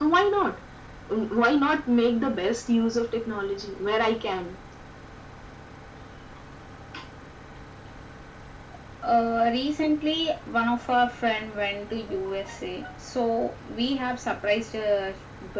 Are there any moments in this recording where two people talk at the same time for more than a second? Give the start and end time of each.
none

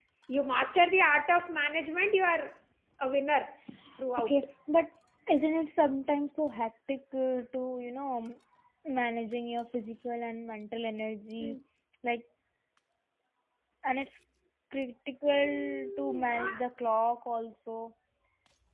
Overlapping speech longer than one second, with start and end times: 15.2-16.6

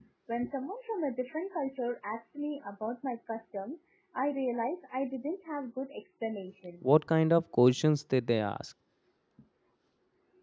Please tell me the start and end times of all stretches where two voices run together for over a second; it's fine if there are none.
none

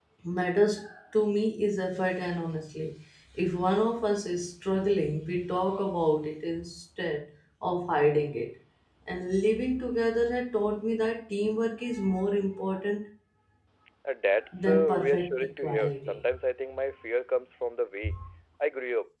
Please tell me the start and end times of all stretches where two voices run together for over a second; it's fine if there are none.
14.5-16.2

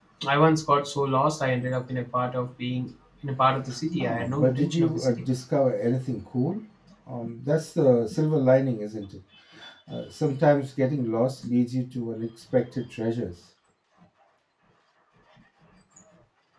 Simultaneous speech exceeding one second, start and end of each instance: 4.0-5.2

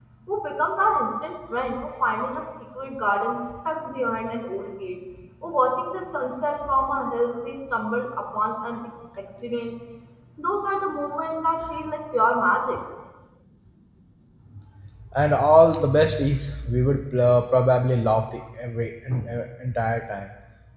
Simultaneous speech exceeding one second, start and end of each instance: none

